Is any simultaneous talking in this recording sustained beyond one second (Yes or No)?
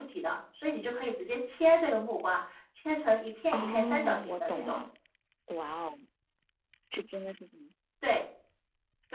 Yes